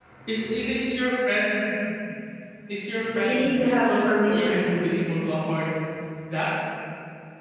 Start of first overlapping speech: 3.2 s

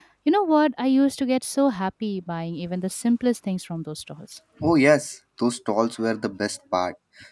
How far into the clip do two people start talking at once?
none

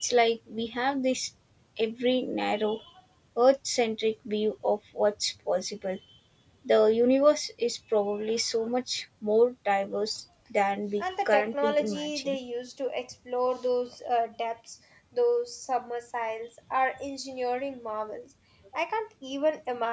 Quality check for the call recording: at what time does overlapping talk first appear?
11.0 s

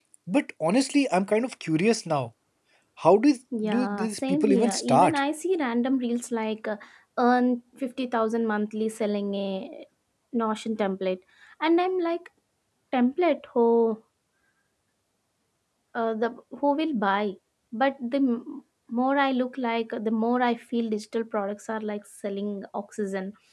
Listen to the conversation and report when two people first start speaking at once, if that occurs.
3.6 s

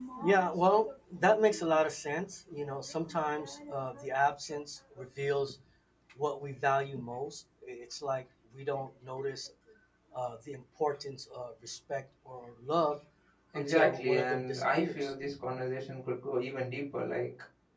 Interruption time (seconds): 13.6 s

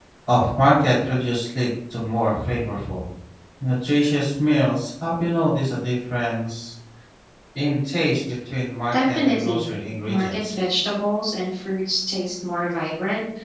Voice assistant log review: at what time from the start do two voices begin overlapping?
8.9 s

